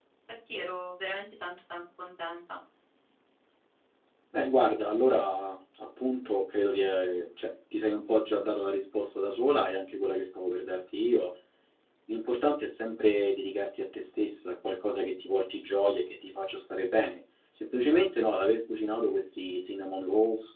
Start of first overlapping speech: none

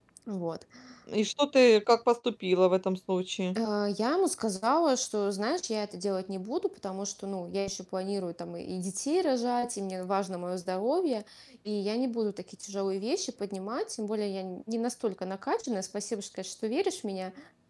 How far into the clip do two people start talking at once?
none

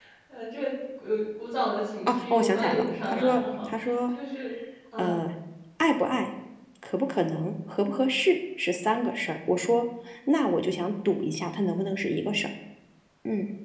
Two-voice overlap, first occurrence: 2.1 s

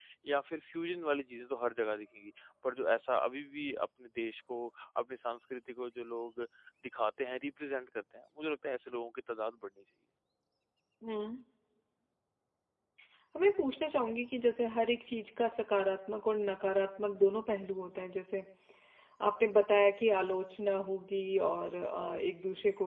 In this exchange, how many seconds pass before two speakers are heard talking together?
none

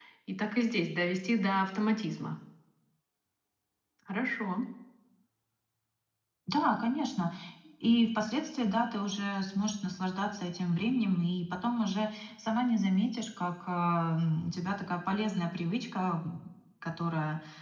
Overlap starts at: none

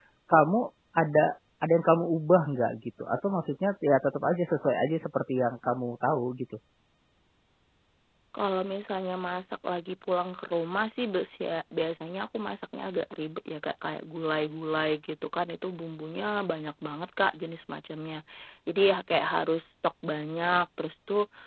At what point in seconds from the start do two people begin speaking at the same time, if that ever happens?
none

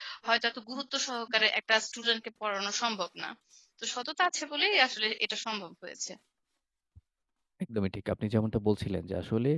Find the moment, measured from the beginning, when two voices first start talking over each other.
none

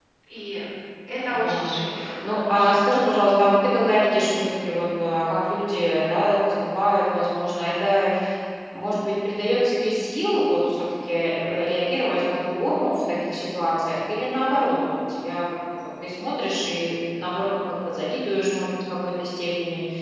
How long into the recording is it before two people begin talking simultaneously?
1.4 s

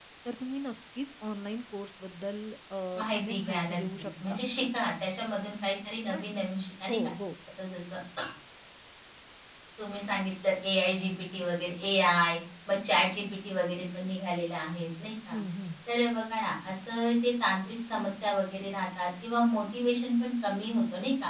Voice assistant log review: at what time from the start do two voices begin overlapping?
3.1 s

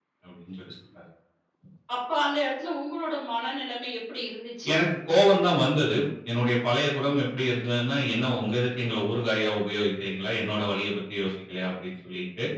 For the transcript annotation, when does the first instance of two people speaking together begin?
none

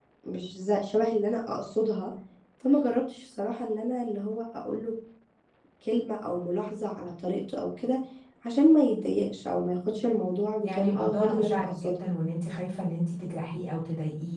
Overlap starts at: 10.6 s

